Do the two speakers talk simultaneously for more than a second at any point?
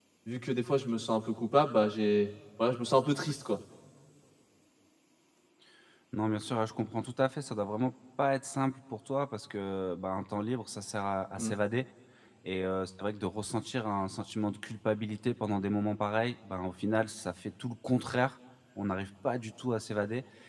No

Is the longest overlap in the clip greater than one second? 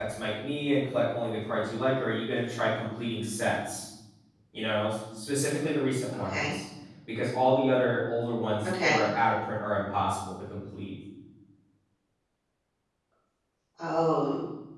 No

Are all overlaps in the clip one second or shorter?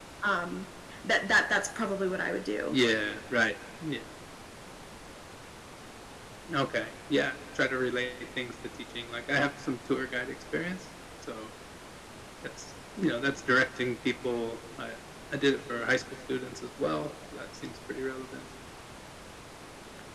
Yes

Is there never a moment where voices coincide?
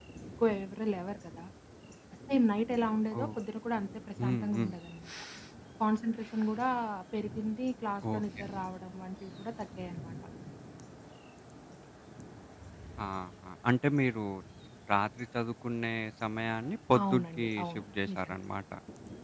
No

